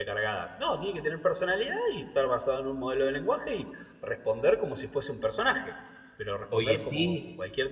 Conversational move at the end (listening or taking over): listening